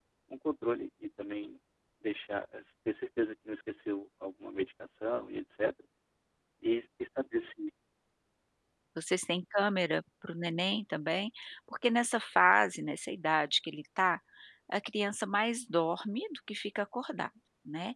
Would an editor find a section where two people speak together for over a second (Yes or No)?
No